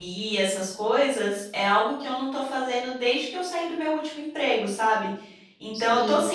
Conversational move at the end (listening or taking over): listening